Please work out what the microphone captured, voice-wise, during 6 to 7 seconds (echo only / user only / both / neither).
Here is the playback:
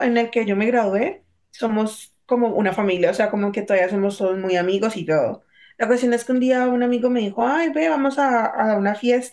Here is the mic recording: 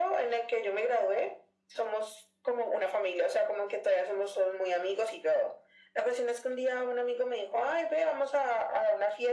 echo only